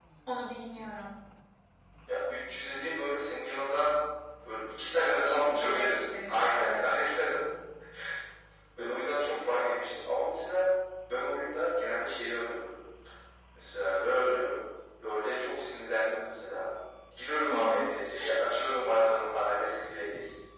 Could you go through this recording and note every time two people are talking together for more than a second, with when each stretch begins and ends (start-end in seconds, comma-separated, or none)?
5.2-7.1